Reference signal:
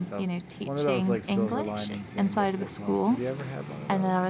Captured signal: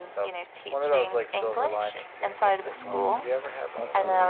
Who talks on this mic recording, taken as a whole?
both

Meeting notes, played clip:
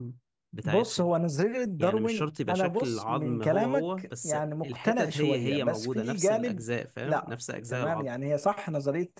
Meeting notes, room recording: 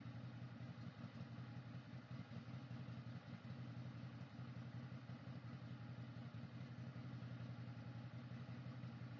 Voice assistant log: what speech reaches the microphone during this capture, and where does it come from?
neither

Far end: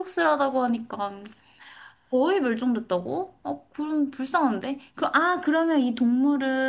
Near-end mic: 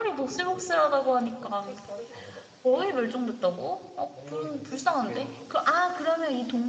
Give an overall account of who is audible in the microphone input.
both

